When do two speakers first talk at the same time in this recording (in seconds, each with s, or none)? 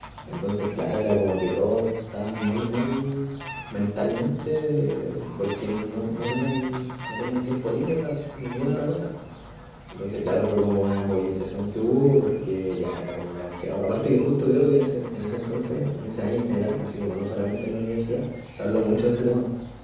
none